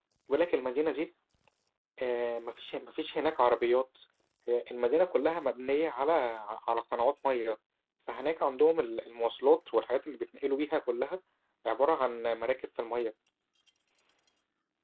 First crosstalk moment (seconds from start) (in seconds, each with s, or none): none